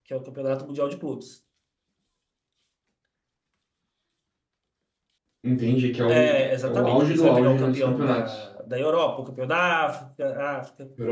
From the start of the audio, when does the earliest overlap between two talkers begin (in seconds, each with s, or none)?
6.1 s